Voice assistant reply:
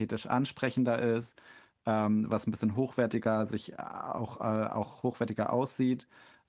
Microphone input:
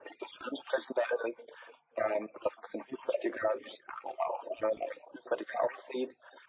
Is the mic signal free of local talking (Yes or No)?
Yes